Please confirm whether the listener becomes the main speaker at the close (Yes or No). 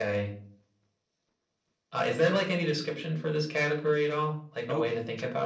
Yes